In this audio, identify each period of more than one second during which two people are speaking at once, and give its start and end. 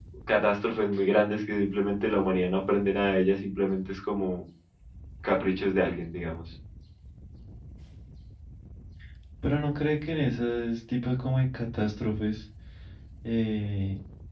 none

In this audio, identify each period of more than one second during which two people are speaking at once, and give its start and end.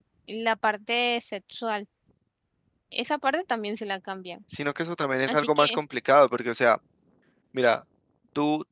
none

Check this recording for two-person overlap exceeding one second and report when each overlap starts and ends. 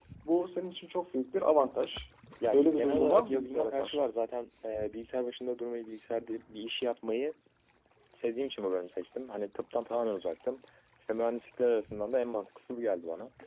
2.5-4.0

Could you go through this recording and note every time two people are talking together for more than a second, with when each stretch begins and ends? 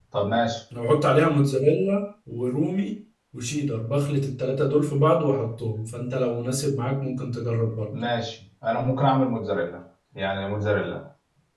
none

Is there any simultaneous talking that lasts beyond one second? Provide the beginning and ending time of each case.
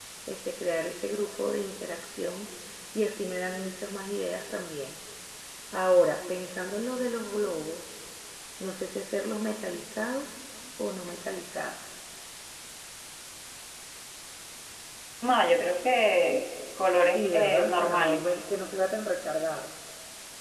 17.0-18.3

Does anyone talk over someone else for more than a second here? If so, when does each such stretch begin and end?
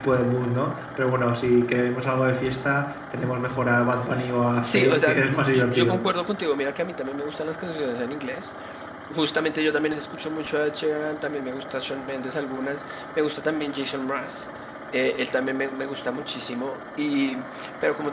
4.6-6.0

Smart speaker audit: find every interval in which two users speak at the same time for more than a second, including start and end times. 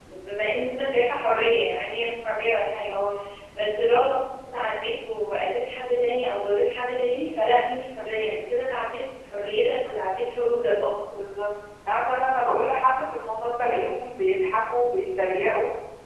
none

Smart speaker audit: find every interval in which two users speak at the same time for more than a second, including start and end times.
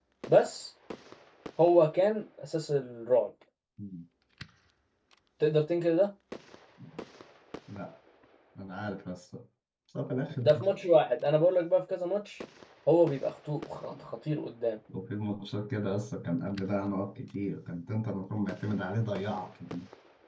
none

